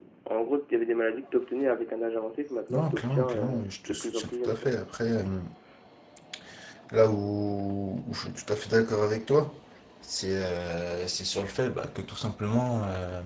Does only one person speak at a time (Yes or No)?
No